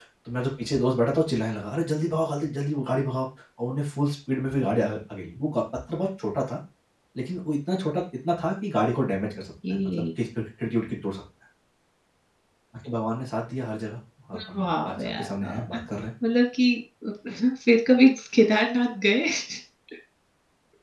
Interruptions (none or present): present